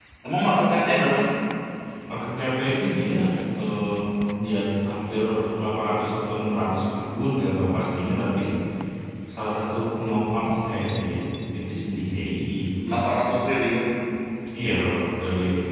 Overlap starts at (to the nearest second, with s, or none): none